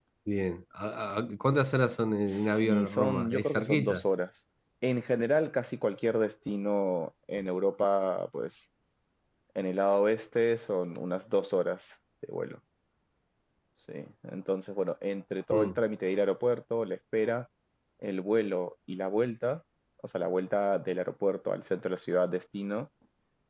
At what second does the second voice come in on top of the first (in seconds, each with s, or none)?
2.3 s